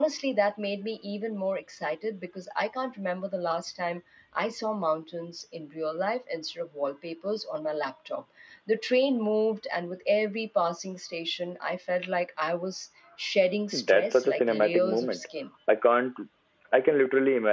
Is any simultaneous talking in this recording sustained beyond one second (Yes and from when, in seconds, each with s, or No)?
Yes, from 13.7 s